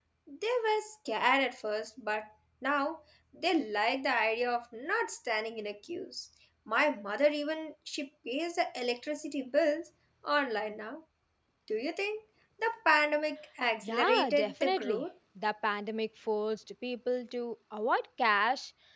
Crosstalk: present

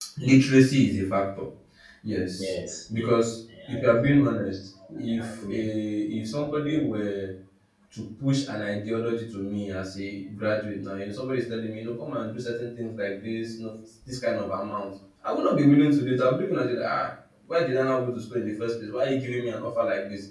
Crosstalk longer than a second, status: none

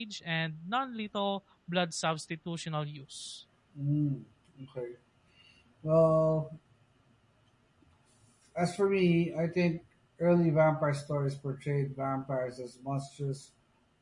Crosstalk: none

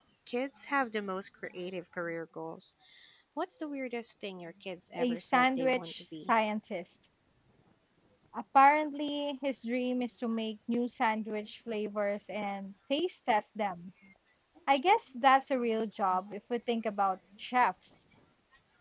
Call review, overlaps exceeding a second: present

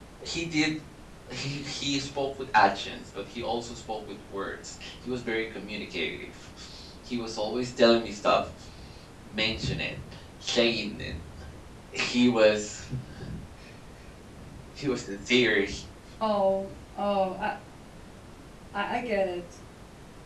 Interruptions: none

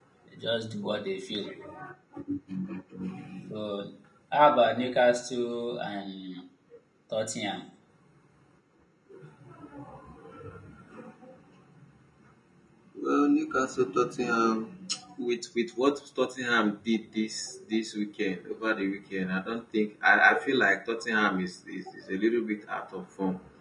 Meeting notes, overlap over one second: none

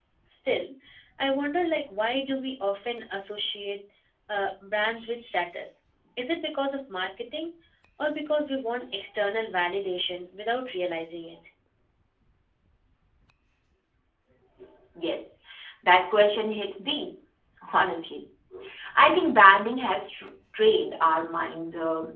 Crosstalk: none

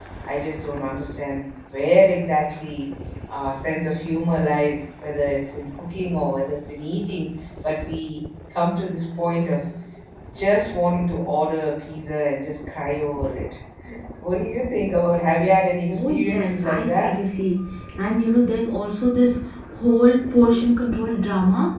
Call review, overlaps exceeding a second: present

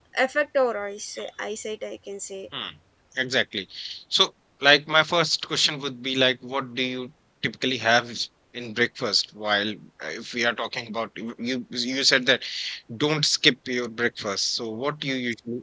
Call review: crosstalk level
none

